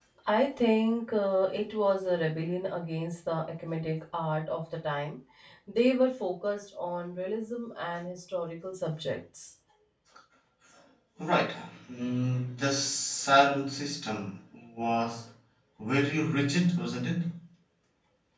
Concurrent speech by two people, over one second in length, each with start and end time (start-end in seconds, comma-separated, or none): none